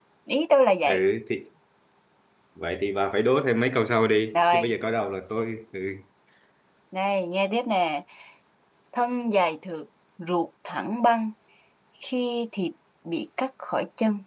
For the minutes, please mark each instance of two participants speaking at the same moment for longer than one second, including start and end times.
none

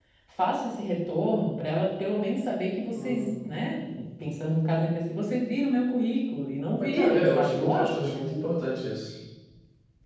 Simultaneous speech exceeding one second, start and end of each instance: 6.8-8.2

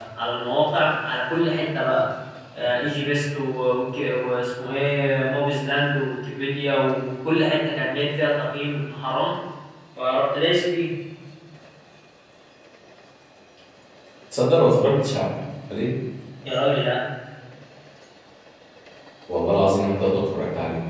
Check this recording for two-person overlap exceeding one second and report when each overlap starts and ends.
none

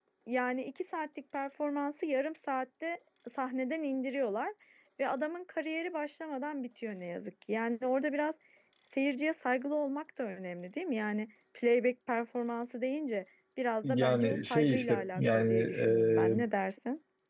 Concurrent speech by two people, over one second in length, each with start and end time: 13.8-16.4

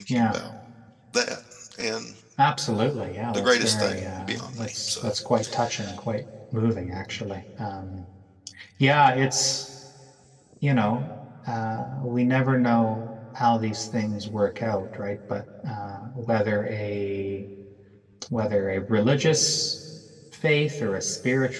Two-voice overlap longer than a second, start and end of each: 3.3-5.1

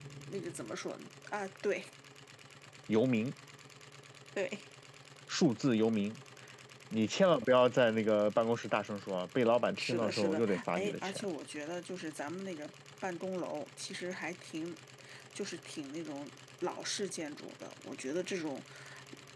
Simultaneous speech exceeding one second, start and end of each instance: 9.8-11.2

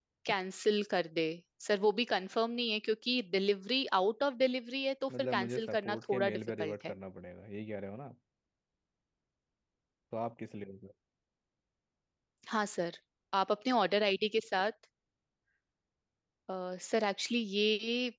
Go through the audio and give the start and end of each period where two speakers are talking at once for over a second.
5.2-7.0

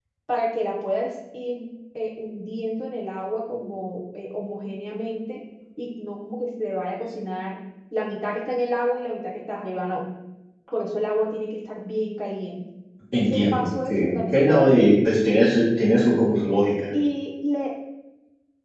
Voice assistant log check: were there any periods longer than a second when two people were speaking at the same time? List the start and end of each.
13.3-14.9

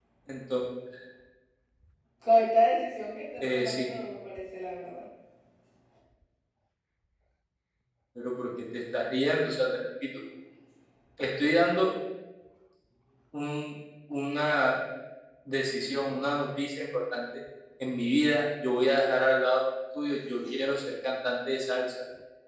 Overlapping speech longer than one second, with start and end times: none

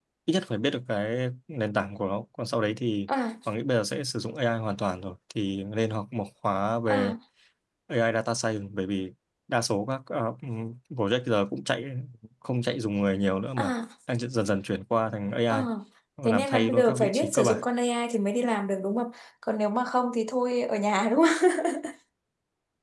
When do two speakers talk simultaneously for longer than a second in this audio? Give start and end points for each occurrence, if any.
16.3-17.6

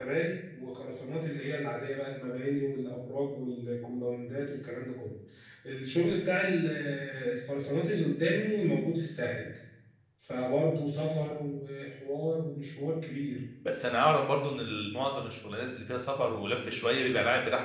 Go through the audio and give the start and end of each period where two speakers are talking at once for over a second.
none

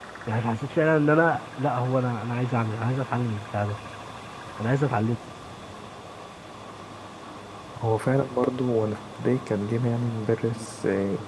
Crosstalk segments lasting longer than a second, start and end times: none

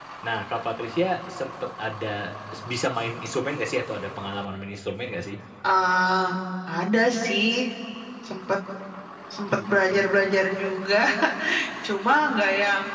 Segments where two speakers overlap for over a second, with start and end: none

